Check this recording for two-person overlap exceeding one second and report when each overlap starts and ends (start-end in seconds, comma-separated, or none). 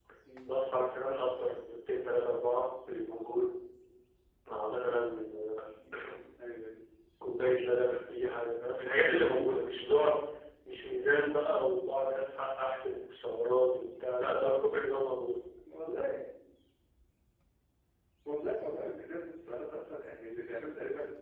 none